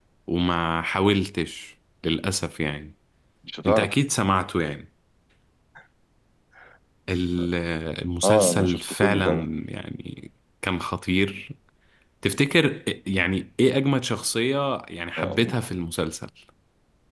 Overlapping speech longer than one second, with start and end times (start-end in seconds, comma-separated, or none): 8.2-9.5